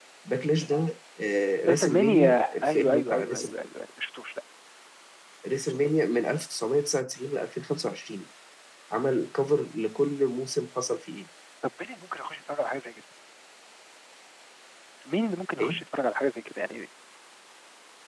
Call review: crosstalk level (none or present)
present